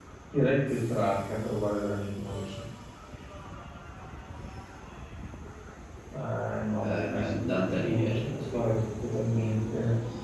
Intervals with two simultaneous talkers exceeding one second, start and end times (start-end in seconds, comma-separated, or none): 6.7-8.7